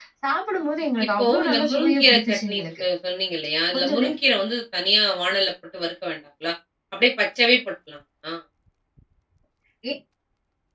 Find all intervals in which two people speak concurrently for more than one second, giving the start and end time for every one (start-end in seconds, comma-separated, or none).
1.1-2.8